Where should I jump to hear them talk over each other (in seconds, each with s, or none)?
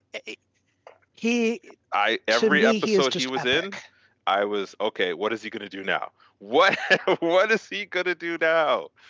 2.3 s